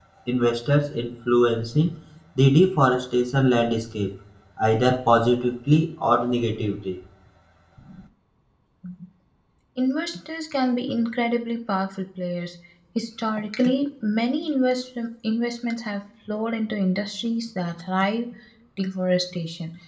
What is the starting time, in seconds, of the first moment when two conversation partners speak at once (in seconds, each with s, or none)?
none